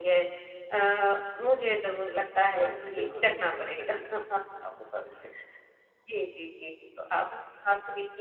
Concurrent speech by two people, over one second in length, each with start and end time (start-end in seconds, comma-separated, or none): 2.5-4.0